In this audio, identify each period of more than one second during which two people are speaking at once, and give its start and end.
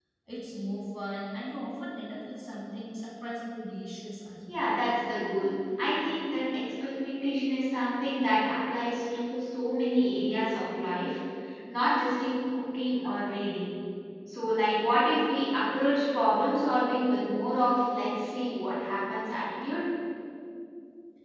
none

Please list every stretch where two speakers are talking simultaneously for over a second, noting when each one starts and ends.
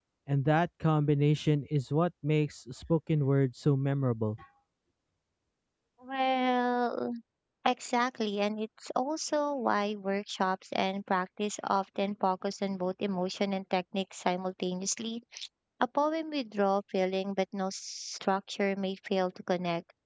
none

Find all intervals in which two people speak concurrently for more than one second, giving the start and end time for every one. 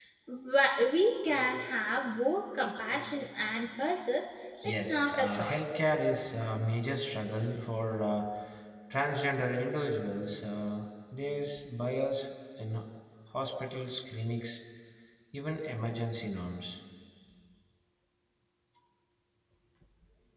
4.6-5.8

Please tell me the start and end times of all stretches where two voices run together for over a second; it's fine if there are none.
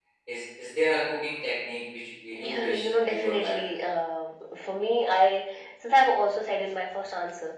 2.3-3.9

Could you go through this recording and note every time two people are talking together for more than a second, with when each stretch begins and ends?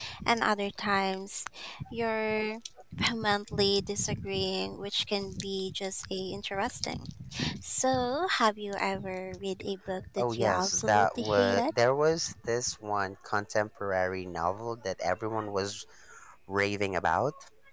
10.2-11.7

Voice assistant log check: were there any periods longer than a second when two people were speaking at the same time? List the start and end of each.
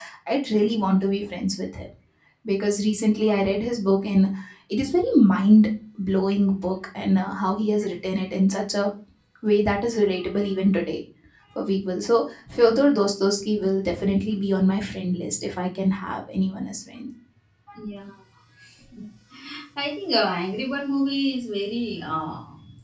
none

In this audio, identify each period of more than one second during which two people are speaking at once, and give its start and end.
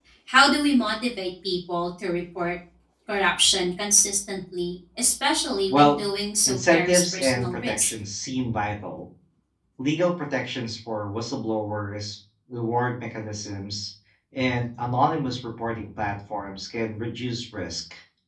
6.5-7.9

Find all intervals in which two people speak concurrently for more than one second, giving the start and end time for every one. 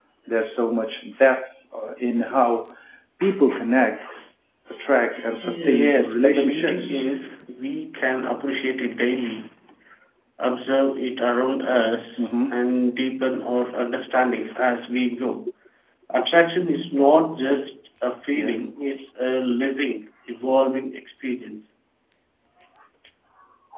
5.4-7.1

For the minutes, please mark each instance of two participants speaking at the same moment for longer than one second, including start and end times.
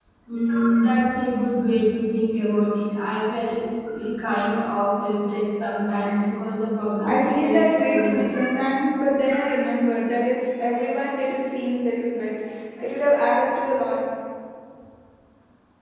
7.0-8.3

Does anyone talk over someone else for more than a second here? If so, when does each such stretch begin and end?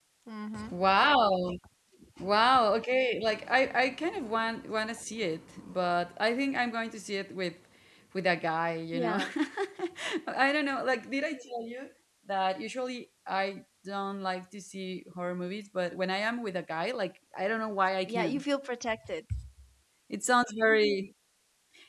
none

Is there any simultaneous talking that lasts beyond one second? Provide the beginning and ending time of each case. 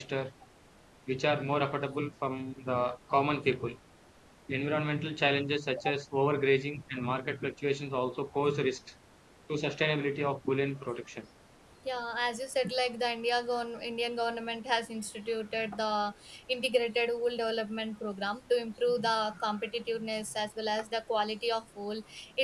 none

